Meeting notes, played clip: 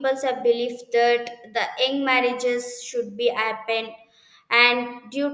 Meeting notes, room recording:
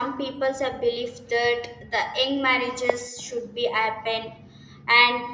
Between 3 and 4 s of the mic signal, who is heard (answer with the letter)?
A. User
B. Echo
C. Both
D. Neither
B